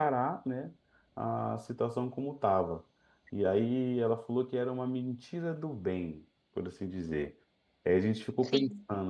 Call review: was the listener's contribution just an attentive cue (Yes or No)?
Yes